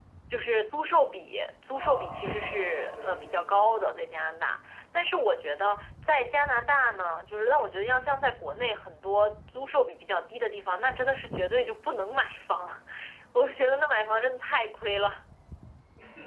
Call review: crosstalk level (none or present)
present